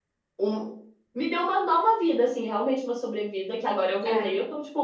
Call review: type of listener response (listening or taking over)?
listening